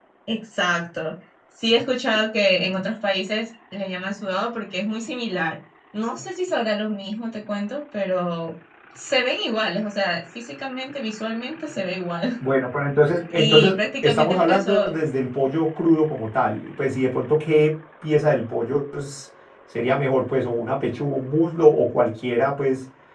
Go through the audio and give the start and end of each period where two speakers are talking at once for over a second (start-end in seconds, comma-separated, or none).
13.3-14.9